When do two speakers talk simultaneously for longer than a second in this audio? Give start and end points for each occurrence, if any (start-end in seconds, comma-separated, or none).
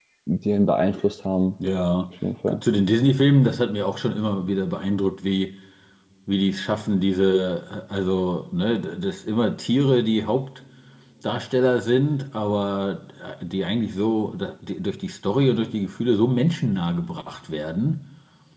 none